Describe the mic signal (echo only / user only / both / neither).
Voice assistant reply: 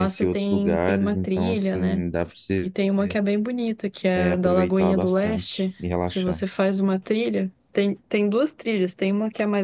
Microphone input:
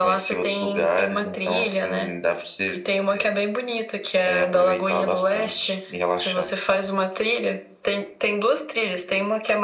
echo only